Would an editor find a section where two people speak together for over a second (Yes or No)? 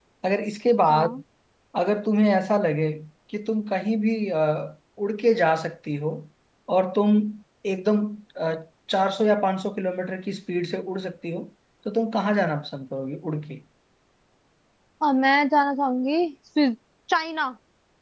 No